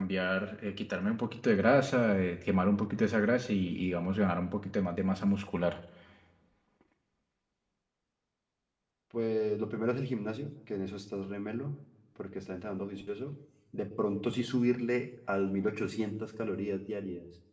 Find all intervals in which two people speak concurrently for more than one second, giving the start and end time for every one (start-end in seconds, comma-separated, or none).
none